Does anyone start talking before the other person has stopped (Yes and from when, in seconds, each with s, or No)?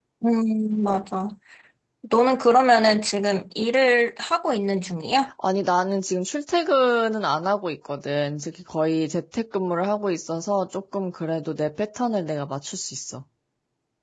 No